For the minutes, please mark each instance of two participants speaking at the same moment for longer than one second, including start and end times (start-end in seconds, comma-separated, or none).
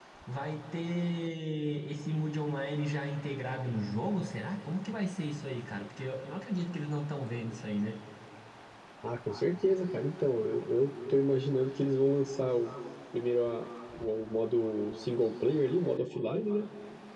none